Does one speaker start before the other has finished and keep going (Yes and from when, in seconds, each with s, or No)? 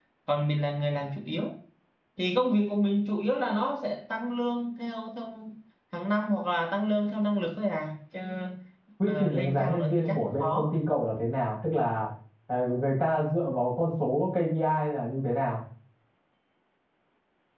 Yes, from 9.0 s